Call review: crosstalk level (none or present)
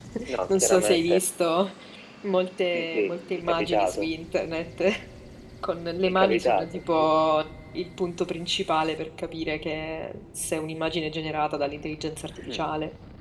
present